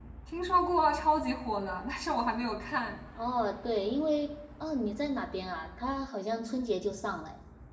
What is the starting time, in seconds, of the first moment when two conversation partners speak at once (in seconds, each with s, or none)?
none